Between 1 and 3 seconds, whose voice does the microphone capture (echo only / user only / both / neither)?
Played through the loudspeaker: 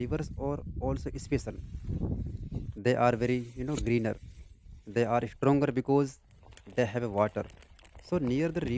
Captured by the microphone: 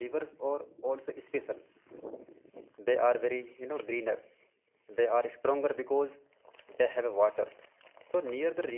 echo only